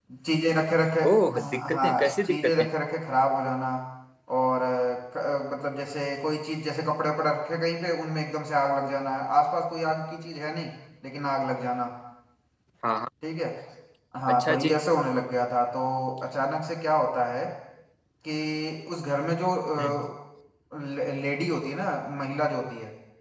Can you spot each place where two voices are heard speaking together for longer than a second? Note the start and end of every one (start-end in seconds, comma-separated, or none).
1.4-2.6